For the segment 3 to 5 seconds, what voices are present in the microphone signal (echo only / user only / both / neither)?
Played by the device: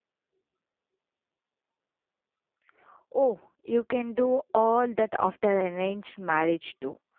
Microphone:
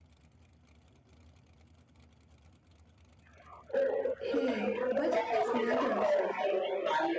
both